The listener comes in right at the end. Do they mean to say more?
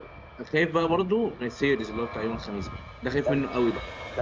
Yes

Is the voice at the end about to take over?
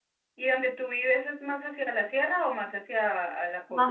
Yes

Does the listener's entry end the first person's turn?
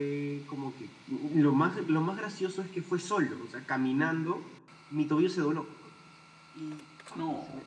No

